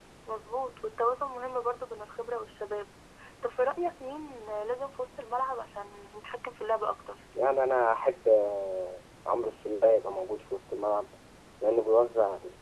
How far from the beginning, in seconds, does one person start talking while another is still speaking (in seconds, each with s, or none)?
none